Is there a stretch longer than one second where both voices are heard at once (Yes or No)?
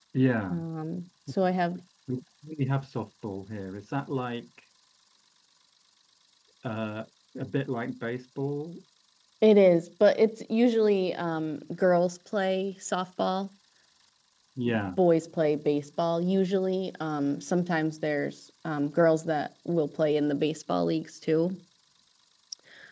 No